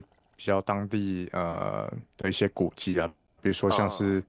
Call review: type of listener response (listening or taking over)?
listening